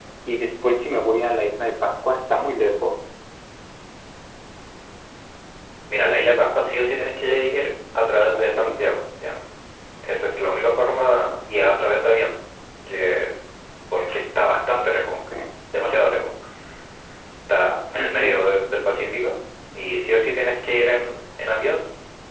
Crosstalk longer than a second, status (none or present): none